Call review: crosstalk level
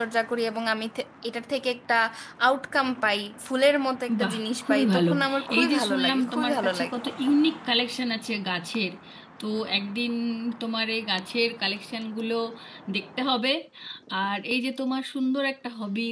present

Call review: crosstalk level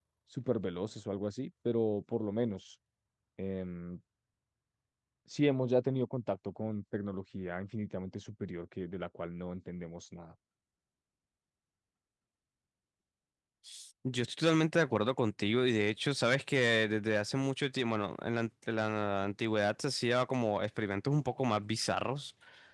none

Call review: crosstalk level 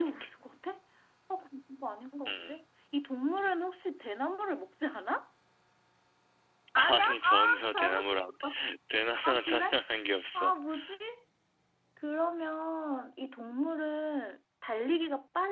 present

